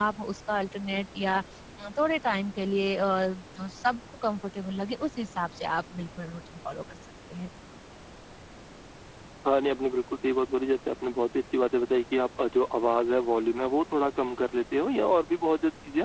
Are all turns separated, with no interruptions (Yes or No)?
Yes